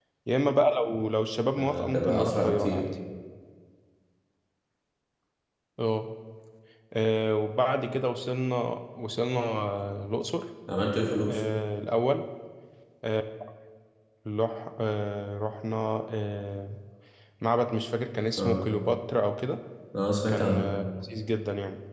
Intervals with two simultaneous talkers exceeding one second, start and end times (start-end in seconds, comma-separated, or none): 1.6-2.8